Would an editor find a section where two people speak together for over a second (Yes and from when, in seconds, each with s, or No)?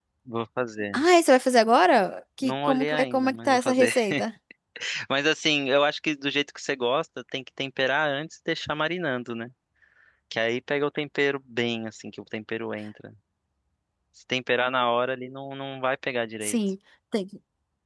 Yes, from 2.4 s